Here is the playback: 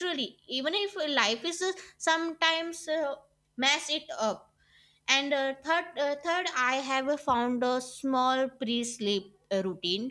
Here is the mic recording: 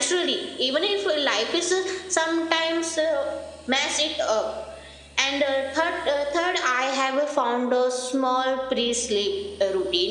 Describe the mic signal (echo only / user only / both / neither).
echo only